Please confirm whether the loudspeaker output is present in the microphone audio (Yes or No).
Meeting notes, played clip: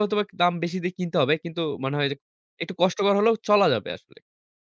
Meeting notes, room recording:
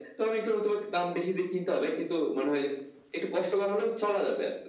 Yes